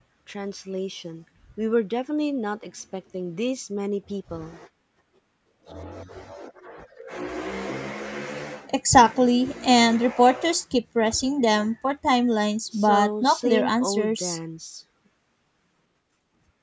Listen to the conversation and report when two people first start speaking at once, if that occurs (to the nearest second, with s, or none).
13 s